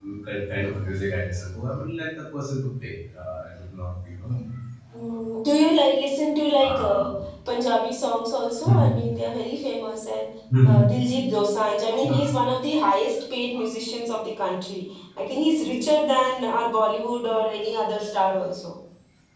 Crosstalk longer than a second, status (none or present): none